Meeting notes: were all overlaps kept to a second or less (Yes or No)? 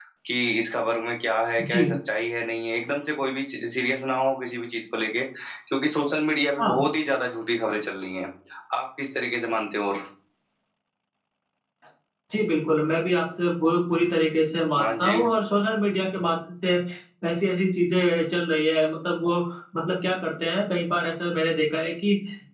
Yes